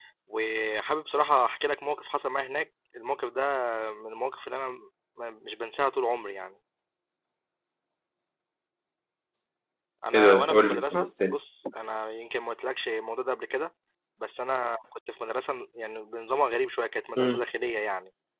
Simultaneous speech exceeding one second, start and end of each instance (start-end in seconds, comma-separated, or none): 10.1-11.4